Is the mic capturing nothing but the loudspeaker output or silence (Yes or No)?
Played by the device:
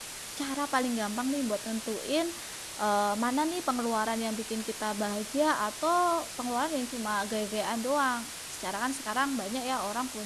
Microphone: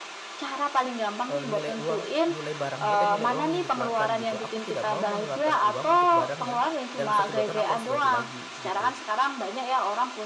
No